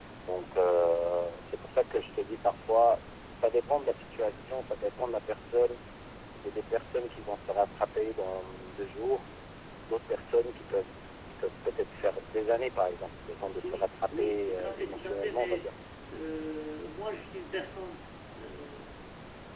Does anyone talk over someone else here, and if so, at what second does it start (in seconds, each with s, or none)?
13.6 s